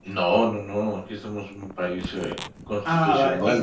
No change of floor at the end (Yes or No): No